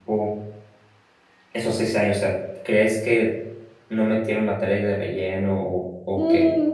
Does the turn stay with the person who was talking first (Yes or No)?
No